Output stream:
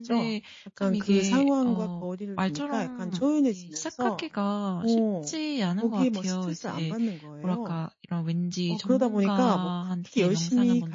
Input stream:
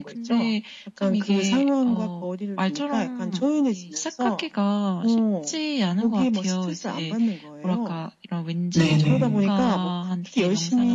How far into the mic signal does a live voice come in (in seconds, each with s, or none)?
8.7 s